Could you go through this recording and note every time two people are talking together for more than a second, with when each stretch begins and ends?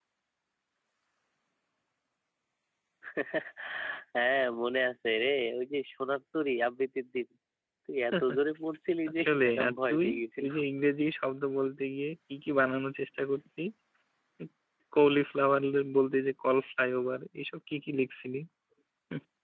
9.1-10.5

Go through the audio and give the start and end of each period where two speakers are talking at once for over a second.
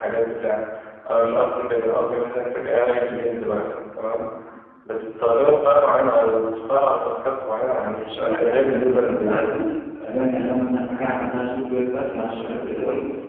7.9-9.5

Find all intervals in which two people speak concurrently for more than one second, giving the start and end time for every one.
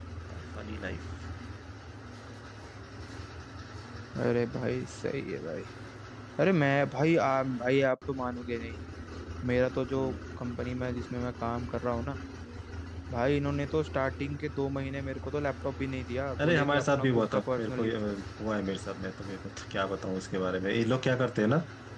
16.4-18.0

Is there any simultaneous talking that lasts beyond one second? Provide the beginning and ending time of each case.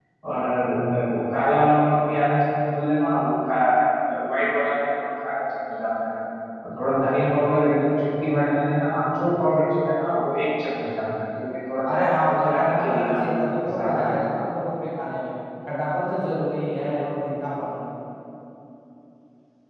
11.9-13.2

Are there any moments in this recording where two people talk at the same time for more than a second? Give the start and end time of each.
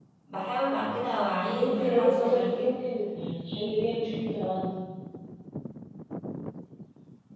1.5-2.7

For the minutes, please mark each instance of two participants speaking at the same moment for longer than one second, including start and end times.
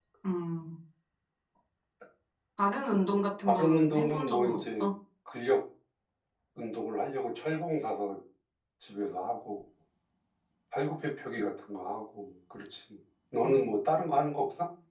3.5-4.8

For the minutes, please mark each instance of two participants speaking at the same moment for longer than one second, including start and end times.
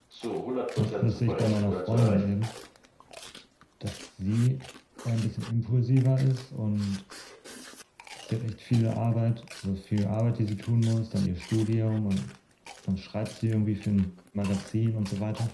0.8-2.3

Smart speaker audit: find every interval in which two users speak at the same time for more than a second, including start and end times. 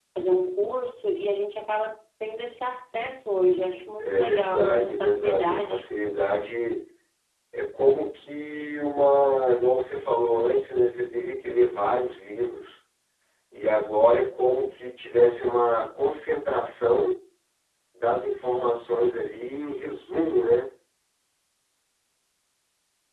4.0-5.8

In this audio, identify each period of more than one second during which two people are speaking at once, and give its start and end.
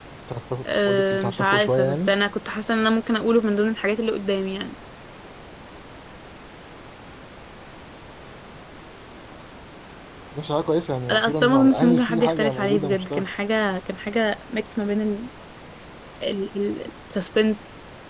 0.8-2.1, 11.1-13.2

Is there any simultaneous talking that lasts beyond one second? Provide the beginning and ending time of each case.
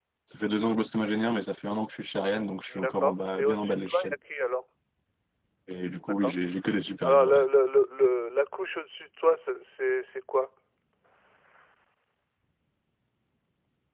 2.7-4.1

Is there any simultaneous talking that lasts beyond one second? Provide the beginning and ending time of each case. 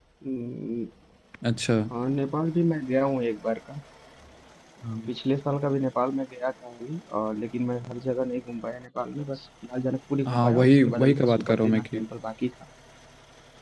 10.3-12.1

